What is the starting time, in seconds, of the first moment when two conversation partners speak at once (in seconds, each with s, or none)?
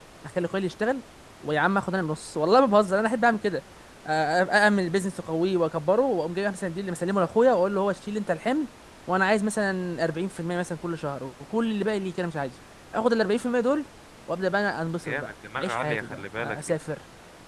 15.1 s